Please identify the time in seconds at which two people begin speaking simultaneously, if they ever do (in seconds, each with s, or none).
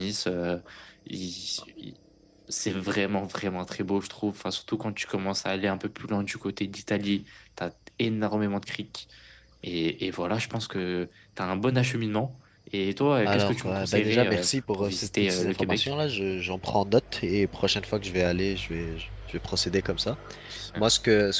13.2 s